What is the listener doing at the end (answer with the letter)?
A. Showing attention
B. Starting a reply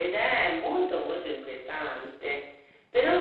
A